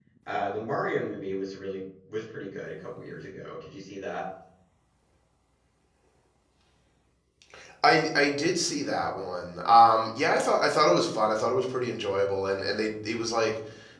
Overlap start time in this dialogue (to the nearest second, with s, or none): none